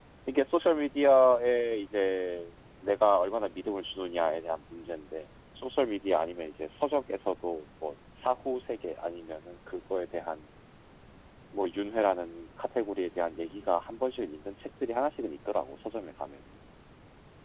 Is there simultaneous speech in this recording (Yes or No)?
No